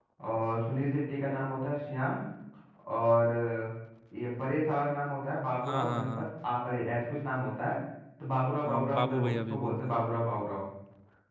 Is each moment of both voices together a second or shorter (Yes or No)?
No